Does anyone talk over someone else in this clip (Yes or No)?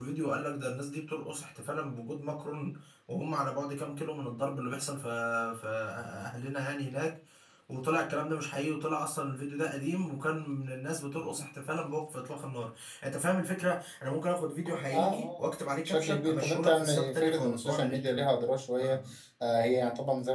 Yes